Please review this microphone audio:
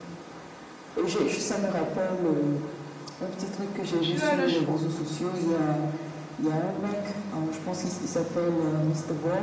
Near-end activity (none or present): present